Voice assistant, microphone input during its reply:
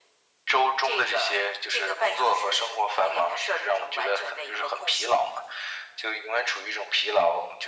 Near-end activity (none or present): none